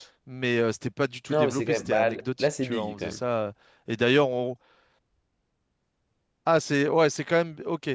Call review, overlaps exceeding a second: present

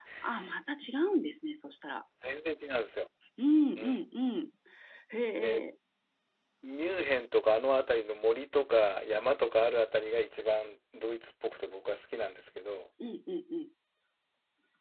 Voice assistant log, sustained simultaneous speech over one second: none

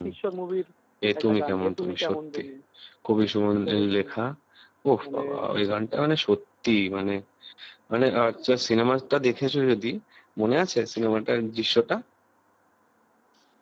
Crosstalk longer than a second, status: present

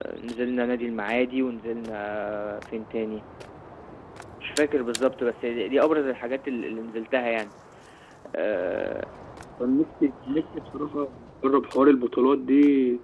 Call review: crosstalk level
none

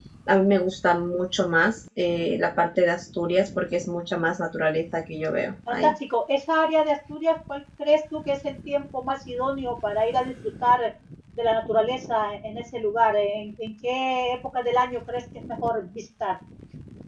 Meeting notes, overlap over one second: none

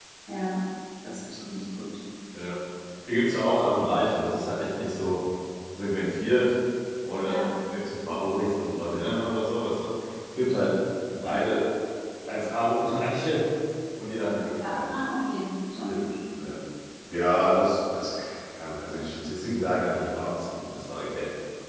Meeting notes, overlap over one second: none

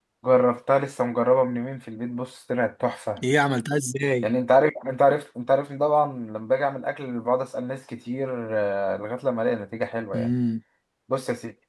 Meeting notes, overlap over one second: none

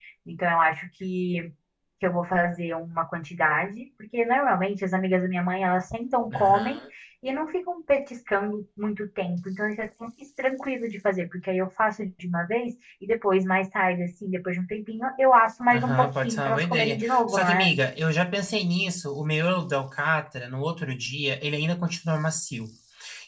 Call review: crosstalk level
present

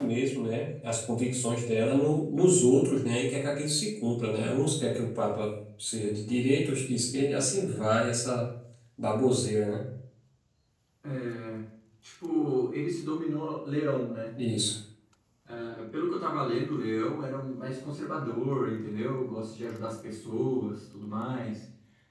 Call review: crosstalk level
none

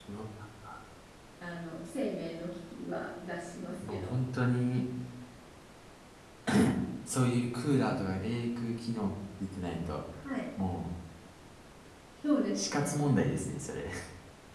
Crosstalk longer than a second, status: none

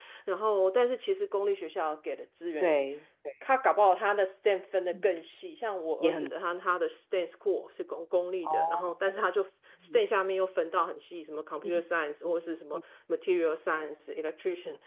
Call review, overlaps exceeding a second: none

